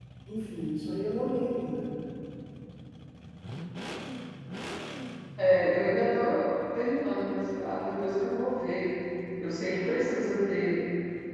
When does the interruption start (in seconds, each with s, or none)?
none